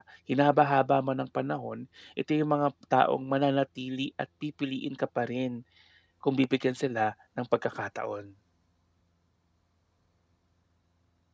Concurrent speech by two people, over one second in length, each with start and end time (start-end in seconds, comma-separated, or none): none